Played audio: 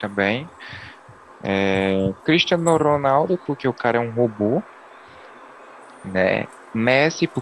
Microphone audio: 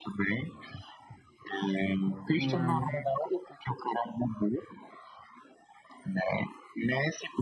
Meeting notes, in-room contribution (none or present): present